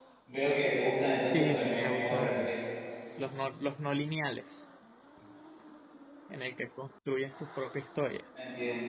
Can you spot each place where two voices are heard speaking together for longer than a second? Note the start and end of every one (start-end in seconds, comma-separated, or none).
1.3-2.5